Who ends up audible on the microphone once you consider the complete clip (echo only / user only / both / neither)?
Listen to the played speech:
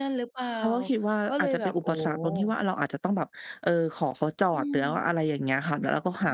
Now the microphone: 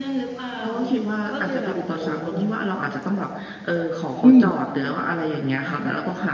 both